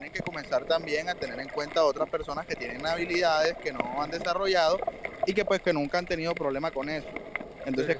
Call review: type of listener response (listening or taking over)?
taking over